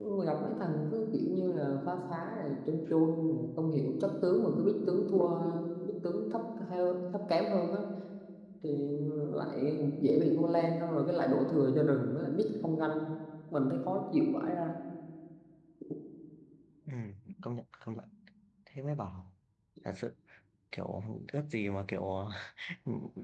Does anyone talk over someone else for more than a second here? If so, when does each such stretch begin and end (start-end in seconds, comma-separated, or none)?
none